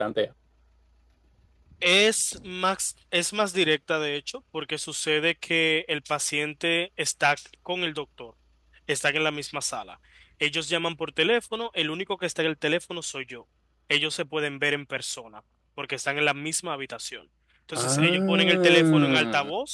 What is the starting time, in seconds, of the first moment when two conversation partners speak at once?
17.7 s

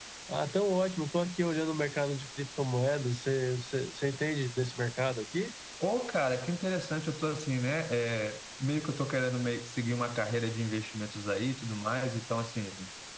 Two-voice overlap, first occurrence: none

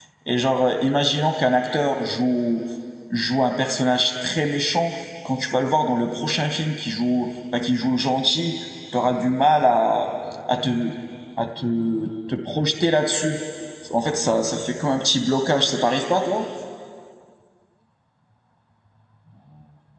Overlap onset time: none

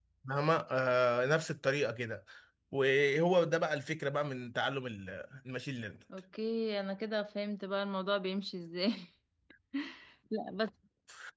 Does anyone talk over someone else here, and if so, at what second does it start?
none

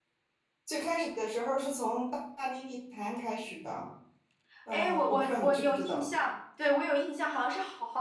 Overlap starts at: 4.7 s

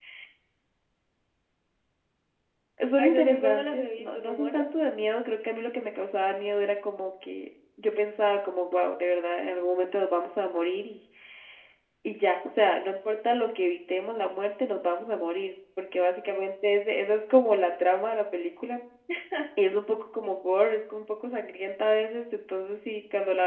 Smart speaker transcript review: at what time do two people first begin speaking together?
3.0 s

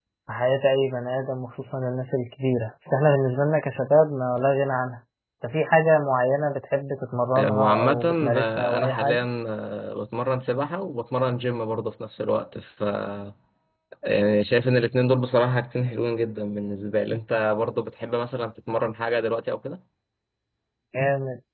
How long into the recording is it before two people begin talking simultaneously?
7.3 s

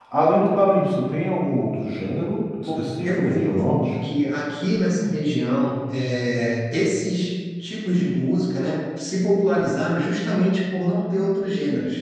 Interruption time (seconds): 2.6 s

